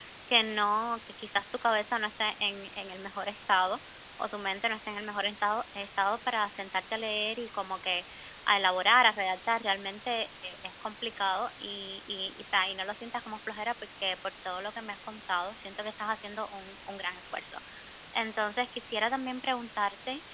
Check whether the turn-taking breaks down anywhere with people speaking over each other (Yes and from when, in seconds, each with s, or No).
No